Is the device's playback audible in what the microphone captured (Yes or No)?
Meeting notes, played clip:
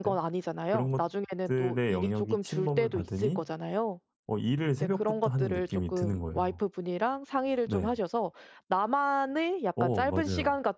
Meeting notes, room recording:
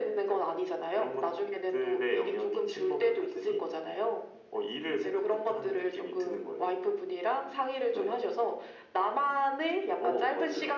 Yes